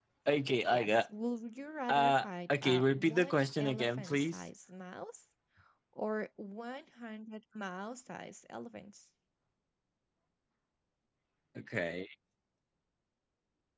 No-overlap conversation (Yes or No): No